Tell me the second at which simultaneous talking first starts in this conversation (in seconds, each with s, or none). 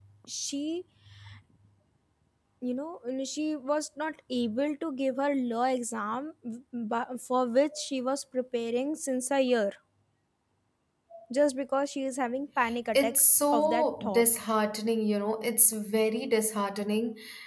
12.9 s